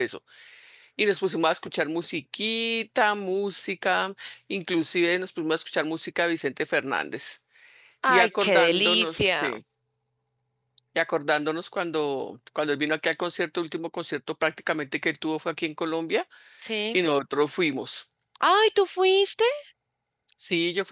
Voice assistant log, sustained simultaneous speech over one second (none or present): present